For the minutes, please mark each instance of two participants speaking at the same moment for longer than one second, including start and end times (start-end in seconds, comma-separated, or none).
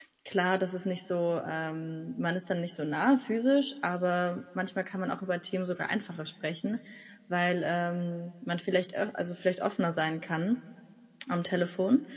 none